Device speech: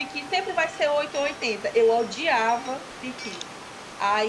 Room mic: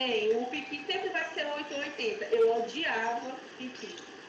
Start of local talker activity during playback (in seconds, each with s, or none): none